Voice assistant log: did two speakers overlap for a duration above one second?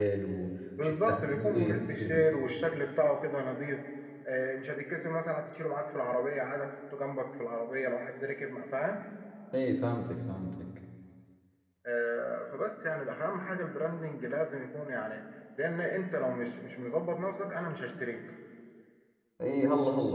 Yes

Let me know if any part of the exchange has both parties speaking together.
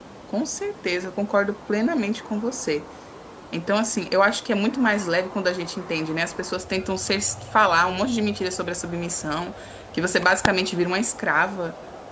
No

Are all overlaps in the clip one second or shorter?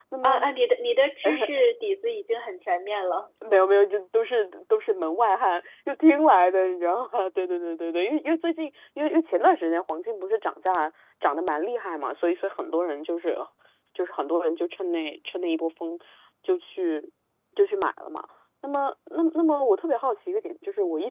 Yes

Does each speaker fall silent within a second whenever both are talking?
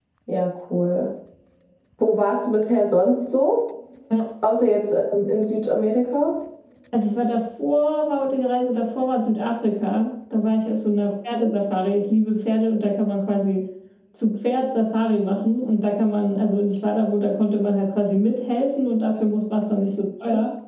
Yes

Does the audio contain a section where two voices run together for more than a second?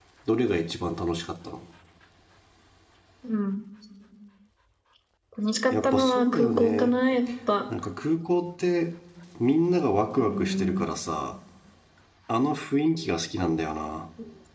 Yes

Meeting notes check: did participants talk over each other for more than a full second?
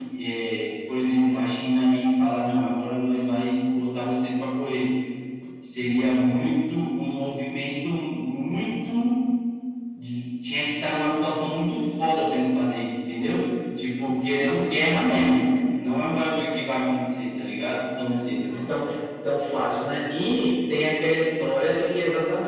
No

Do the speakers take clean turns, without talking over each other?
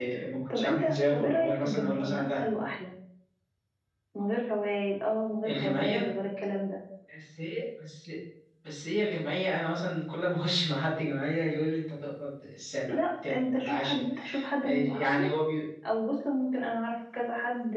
No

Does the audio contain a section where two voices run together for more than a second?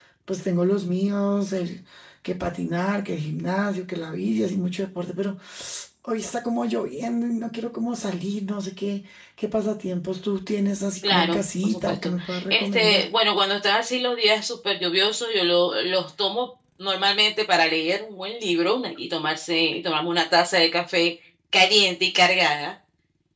Yes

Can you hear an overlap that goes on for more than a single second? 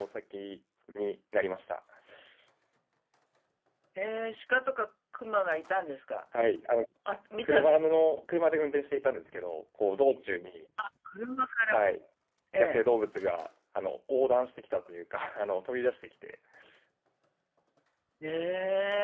No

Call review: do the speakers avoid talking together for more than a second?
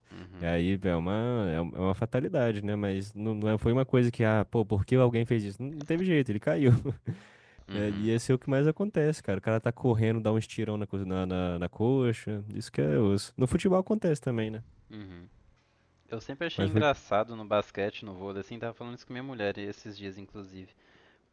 Yes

